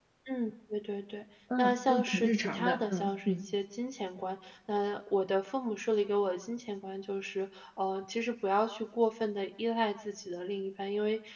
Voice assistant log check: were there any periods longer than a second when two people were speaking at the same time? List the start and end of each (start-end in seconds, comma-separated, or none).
1.6-3.4